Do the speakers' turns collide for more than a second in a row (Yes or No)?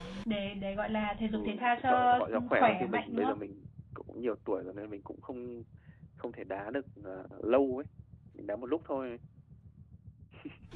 Yes